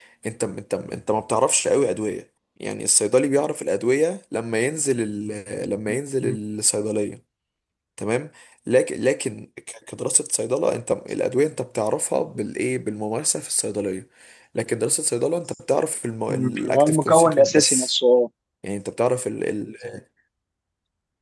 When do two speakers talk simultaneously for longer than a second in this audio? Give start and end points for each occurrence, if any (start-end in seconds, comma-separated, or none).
16.3-17.9